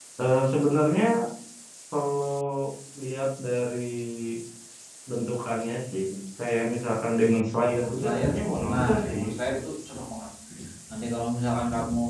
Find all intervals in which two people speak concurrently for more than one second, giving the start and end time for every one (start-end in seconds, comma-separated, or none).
7.7-9.2